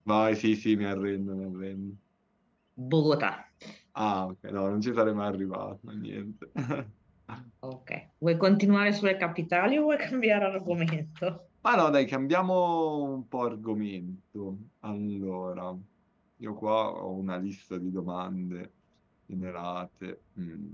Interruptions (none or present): none